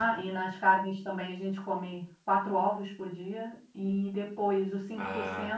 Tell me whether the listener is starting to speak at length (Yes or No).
No